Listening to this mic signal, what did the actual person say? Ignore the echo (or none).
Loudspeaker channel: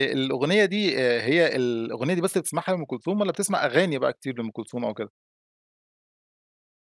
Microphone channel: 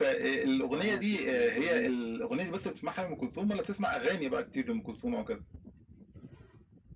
آه، ت ت ي جميلة.